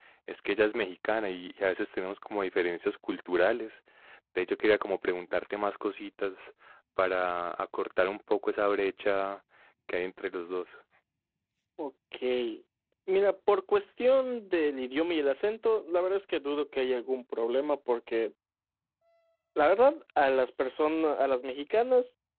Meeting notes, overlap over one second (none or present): none